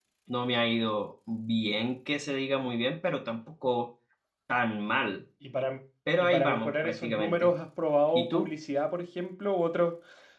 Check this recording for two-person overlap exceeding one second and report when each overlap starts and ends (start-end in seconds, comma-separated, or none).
6.2-7.5